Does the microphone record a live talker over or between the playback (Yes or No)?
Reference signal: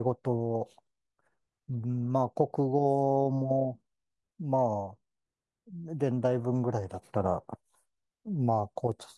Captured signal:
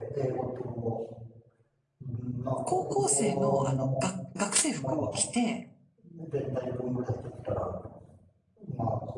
Yes